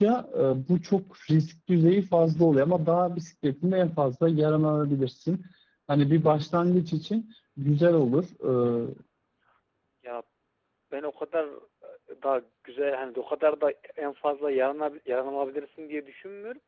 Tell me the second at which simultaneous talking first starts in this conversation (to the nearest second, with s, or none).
none